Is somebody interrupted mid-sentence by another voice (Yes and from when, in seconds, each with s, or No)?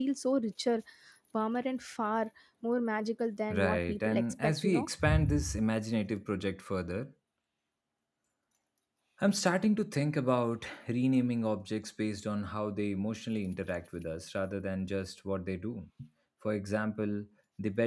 Yes, from 3.5 s